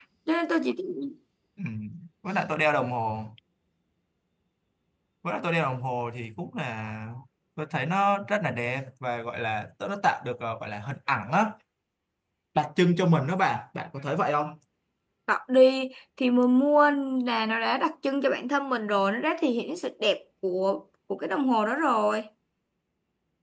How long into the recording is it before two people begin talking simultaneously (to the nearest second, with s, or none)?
none